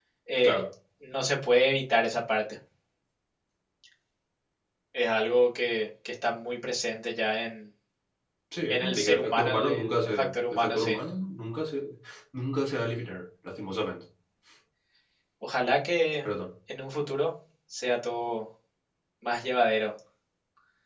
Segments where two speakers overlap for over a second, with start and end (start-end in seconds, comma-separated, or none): 8.7-11.0